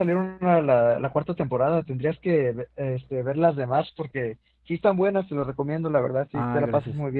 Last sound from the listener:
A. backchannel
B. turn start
A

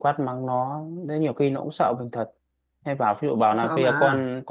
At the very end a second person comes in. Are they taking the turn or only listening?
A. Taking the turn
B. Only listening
B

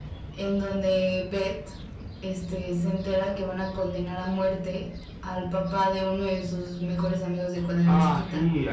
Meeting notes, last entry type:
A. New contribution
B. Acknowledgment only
A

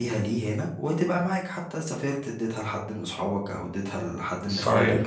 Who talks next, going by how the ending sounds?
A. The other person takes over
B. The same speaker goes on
A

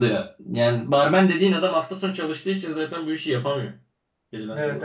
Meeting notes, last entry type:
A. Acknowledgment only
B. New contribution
B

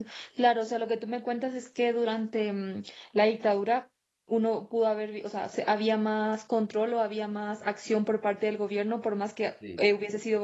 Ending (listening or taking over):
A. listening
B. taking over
A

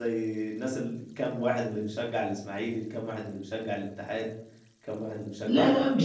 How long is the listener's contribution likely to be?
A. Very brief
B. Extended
B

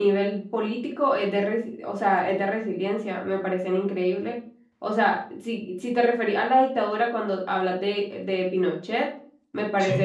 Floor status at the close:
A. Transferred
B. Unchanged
B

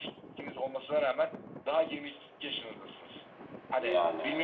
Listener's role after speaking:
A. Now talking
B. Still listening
B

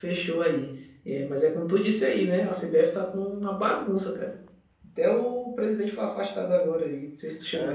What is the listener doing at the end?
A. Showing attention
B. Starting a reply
B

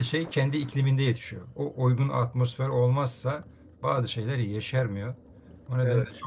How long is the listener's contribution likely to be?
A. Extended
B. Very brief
B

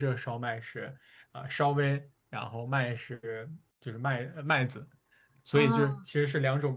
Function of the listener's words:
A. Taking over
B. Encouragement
B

